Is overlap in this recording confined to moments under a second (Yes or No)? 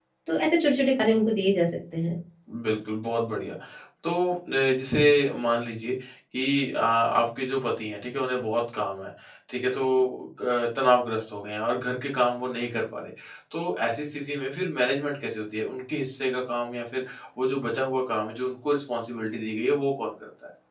Yes